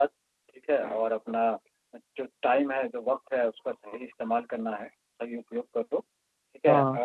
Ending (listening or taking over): listening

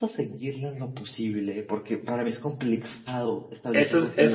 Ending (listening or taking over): taking over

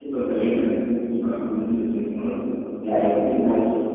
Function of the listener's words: taking over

